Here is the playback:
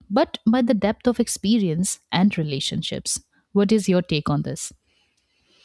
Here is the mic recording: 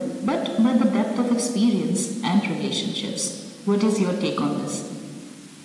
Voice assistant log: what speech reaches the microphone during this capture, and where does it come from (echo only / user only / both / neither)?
echo only